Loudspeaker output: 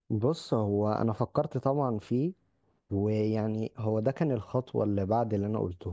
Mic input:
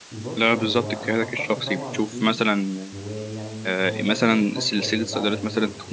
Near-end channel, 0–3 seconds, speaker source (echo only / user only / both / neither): both